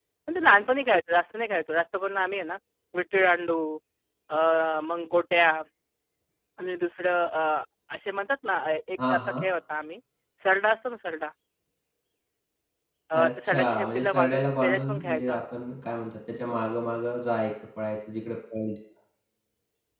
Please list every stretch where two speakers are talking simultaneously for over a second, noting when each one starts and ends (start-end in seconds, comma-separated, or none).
13.1-15.4